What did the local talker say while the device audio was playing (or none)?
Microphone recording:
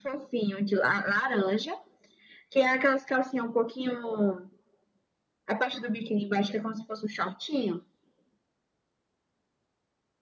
none